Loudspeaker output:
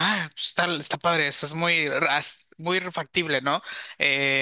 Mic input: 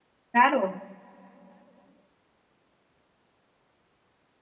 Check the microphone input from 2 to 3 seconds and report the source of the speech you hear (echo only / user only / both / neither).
neither